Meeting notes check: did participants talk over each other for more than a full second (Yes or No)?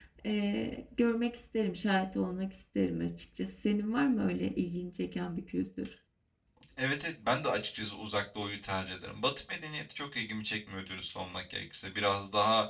No